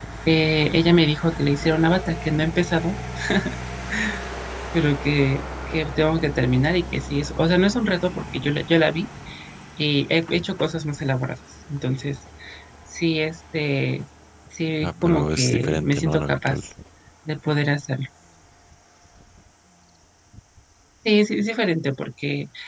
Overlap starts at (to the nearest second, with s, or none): 15 s